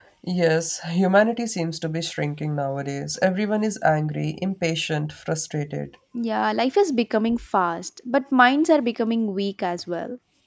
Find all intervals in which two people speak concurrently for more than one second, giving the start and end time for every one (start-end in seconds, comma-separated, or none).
none